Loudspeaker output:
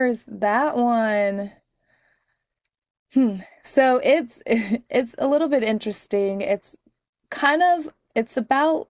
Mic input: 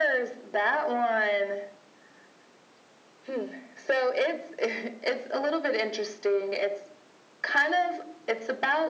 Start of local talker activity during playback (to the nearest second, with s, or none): none